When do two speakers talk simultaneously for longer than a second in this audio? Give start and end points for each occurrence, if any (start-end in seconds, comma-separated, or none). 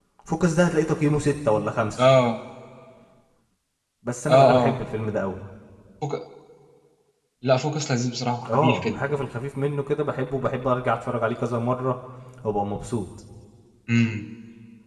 none